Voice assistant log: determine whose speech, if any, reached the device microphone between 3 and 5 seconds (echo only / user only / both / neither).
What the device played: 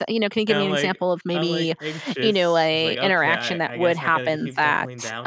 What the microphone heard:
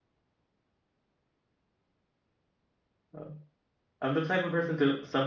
user only